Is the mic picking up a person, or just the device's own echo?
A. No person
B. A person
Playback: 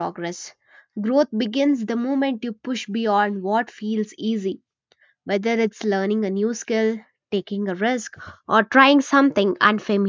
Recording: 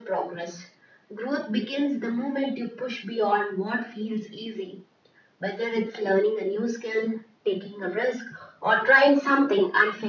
A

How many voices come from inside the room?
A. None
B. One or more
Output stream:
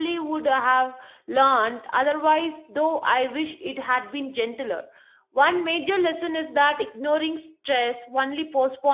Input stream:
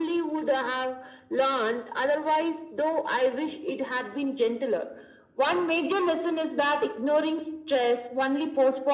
A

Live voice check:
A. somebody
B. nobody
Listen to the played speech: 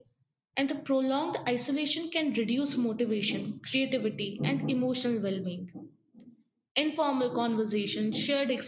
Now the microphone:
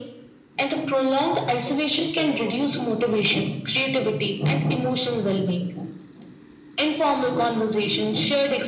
A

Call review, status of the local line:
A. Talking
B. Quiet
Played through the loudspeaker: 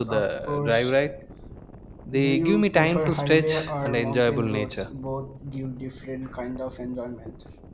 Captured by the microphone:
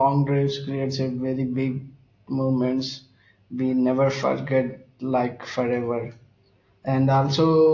A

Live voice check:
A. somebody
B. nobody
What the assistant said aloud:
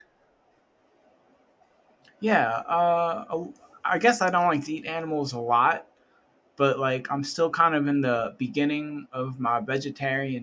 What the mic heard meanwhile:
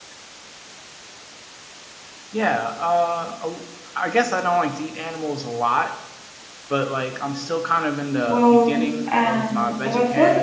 A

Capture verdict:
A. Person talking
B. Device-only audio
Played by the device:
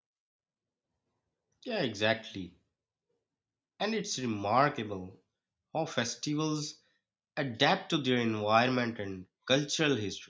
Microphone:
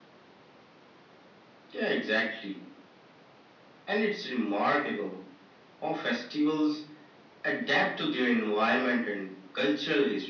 B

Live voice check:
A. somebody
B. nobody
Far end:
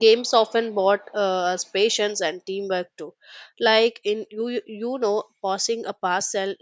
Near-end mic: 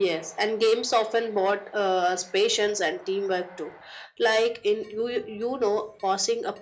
B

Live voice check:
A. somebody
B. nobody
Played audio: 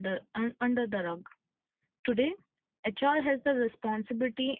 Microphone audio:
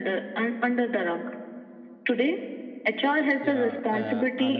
A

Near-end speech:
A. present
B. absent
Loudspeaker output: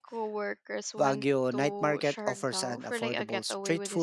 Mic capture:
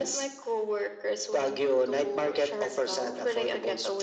B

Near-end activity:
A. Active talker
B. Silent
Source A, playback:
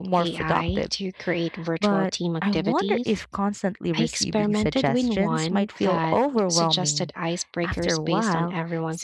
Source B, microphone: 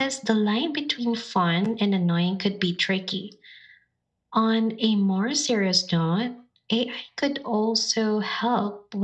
A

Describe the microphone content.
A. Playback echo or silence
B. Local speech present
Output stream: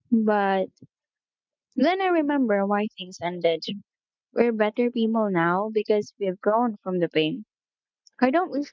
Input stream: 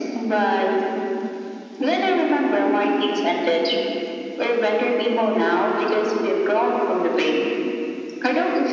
A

